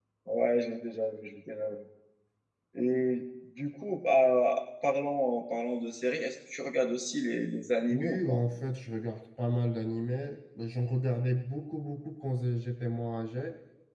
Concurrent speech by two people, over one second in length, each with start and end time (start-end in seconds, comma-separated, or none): none